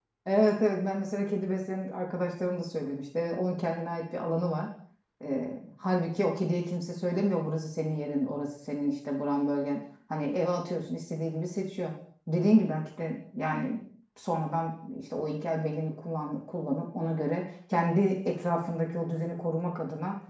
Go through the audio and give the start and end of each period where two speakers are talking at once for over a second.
none

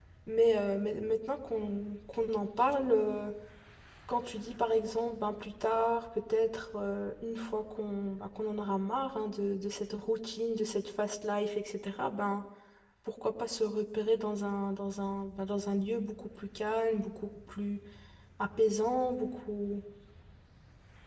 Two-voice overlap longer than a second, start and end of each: none

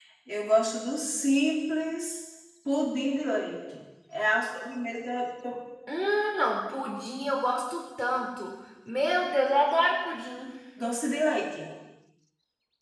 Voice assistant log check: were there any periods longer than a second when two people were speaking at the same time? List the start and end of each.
none

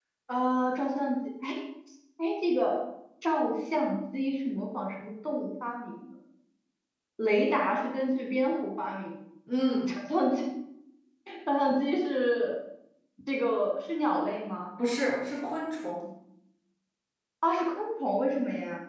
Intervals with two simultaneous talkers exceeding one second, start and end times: none

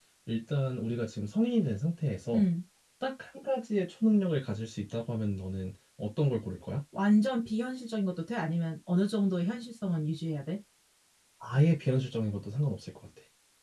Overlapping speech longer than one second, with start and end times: none

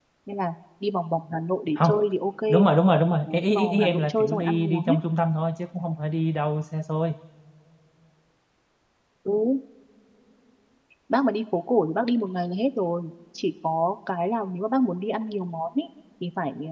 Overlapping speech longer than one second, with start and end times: 3.3-5.0

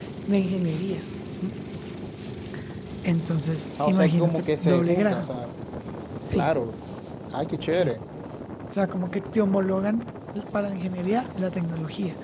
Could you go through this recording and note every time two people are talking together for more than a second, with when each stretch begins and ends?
3.8-5.3

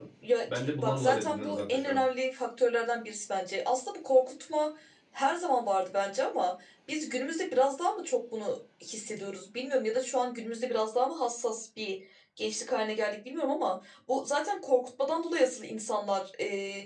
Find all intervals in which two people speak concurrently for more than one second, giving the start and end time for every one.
0.6-2.0

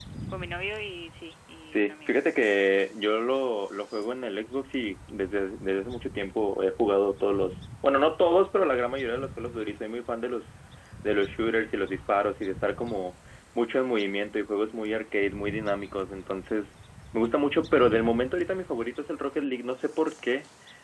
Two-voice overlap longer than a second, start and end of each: none

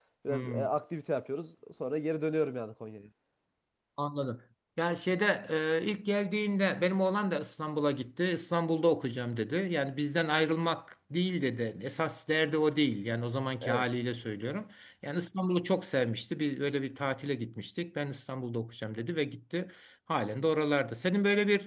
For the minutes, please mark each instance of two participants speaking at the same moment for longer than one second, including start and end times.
none

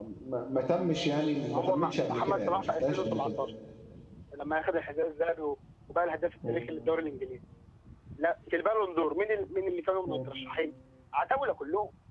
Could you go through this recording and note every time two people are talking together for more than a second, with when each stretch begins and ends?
1.5-3.3

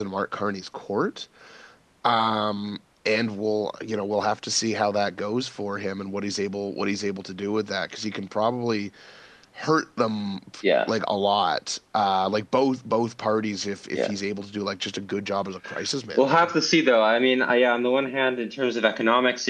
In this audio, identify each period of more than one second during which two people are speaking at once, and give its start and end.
none

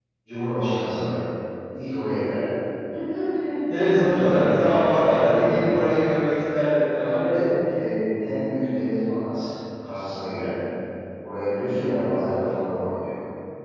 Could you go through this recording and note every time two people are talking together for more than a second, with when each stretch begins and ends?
3.9-5.6

